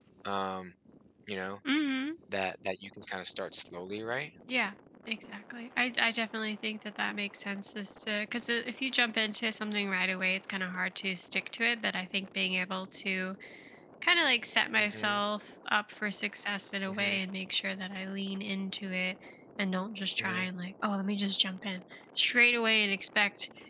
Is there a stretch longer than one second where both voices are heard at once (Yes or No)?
No